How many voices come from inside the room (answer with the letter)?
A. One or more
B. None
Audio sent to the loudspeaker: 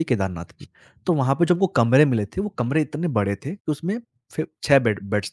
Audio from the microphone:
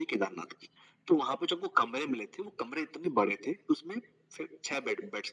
B